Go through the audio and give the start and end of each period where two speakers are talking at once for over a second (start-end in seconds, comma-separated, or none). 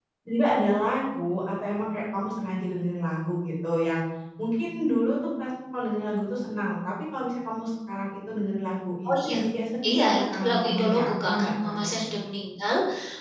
9.9-12.1